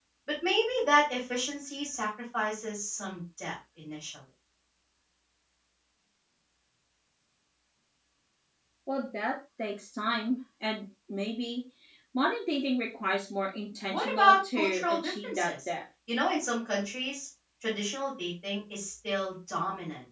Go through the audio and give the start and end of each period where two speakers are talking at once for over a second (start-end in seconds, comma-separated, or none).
13.9-15.7